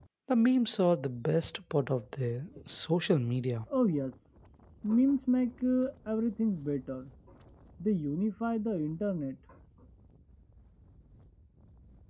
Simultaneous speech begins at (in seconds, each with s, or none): none